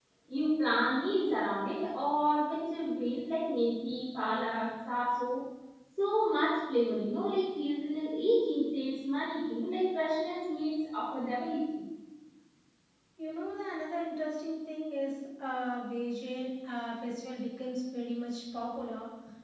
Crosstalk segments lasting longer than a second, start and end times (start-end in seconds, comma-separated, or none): none